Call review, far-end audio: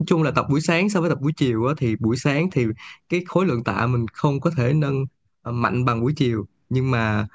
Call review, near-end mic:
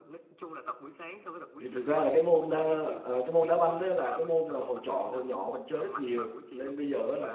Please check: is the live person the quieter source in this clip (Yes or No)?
No